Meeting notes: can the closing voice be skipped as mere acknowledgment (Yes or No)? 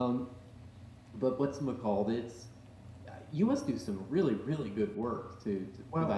No